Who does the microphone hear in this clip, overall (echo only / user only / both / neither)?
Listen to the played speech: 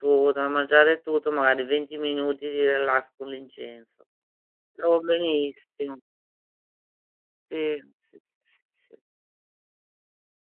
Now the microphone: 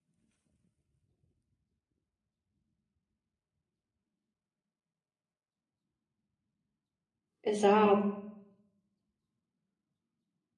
user only